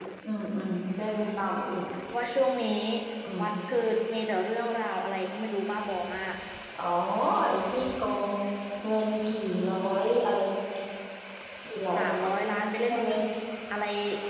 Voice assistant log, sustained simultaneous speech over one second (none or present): none